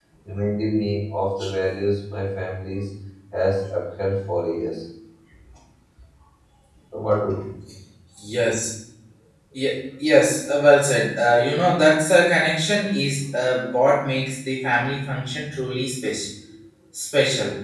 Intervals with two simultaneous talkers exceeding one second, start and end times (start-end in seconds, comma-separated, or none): none